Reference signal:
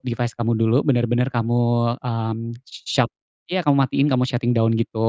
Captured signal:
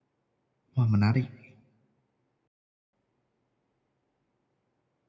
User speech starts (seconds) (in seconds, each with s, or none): 0.7 s